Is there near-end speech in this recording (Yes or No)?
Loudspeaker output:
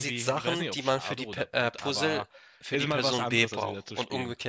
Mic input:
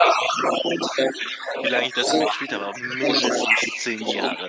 Yes